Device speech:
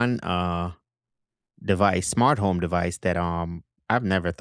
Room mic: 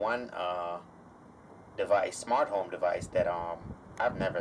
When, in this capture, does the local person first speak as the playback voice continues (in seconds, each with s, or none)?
none